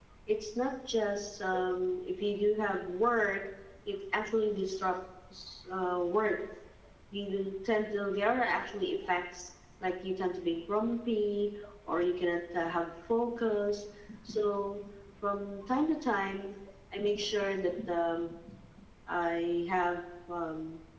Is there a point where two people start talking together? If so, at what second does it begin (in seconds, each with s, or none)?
none